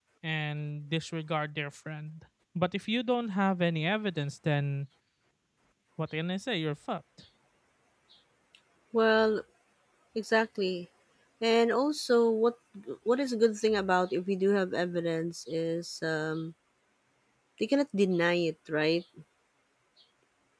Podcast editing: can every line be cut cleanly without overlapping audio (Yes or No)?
Yes